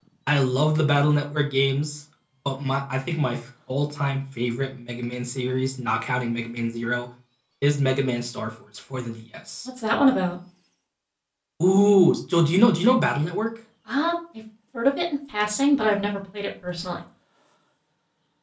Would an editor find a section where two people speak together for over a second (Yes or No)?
No